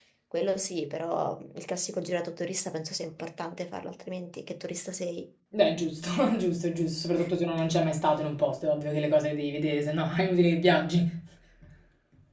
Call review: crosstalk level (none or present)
none